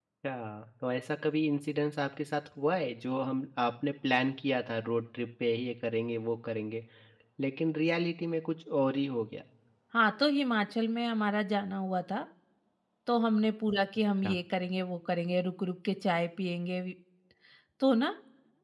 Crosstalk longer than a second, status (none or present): none